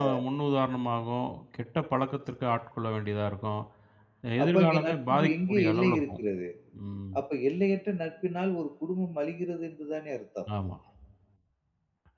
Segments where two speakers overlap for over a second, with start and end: 4.4-6.2

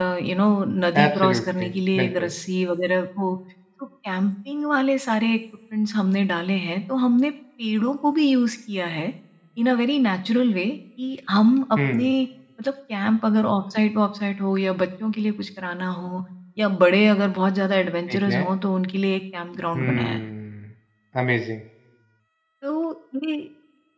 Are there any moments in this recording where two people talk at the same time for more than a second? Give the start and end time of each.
1.0-2.3

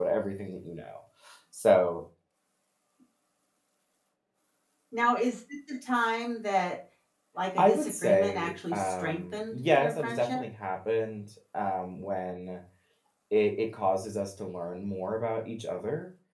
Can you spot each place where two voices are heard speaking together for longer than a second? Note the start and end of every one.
7.6-10.4

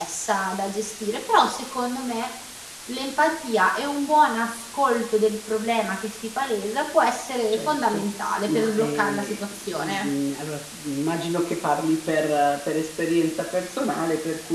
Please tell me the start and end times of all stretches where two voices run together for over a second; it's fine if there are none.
8.5-10.1

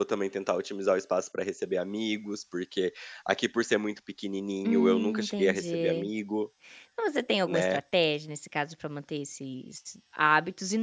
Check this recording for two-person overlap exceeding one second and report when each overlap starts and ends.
4.6-6.1

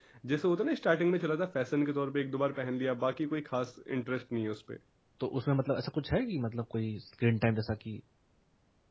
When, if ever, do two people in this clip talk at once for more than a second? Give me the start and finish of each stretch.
none

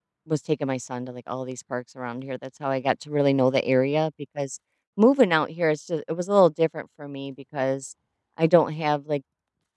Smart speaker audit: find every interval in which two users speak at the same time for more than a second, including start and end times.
none

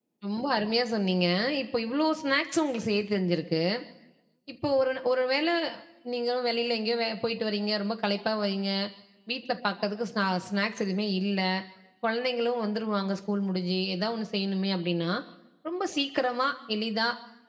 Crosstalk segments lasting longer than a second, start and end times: none

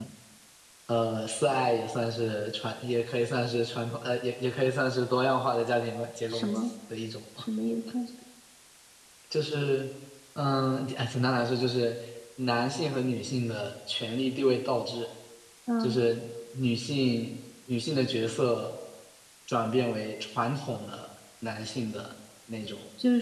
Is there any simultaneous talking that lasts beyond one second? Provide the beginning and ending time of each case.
none

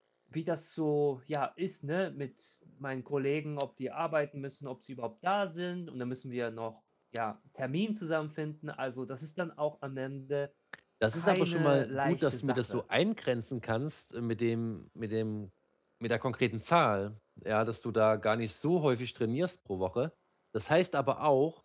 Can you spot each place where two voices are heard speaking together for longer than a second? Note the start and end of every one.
11.1-12.8

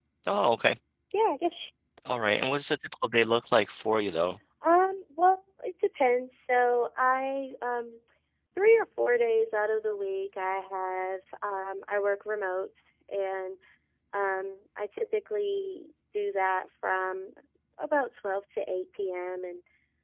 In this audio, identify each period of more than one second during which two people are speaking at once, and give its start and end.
none

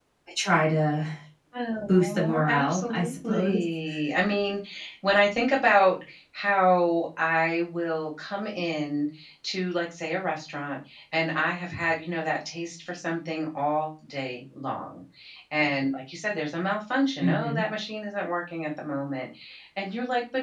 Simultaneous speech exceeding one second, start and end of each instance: 1.9-3.6

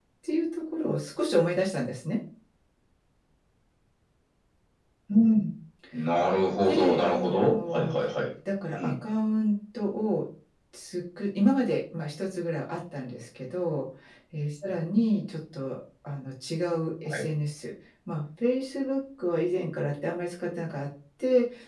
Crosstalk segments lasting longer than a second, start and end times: 6.6-7.9

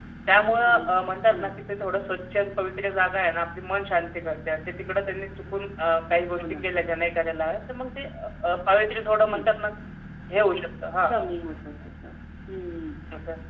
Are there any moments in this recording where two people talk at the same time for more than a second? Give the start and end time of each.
none

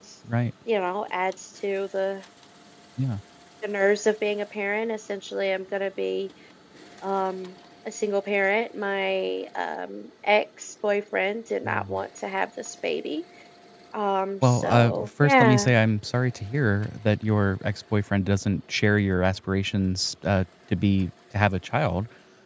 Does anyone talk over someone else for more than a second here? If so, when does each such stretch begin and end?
14.4-15.7

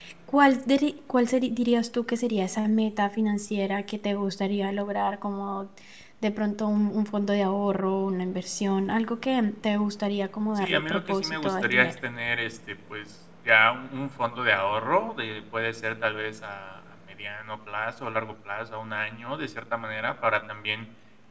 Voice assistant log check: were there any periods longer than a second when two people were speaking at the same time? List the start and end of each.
10.6-11.9

